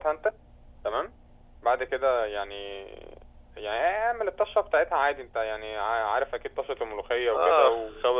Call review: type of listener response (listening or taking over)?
taking over